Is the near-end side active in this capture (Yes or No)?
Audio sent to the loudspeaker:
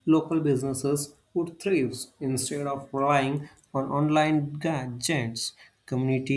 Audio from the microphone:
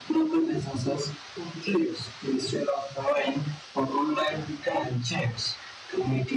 No